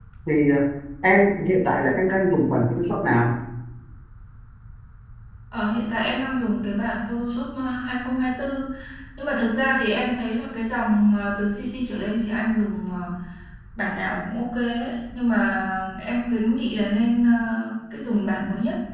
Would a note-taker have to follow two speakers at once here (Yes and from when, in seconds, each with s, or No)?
No